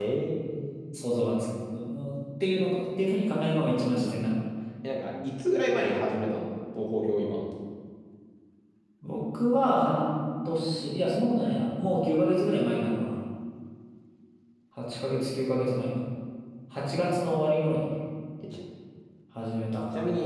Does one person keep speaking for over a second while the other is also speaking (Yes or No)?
No